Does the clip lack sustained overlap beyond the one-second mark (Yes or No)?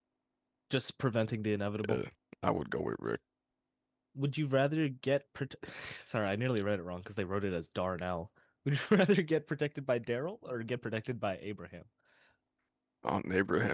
Yes